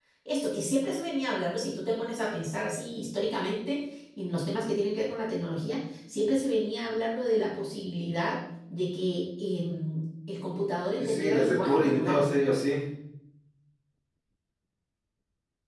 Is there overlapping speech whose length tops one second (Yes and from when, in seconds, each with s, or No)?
Yes, from 11.0 s